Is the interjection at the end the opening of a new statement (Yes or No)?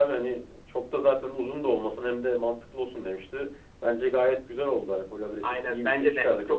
Yes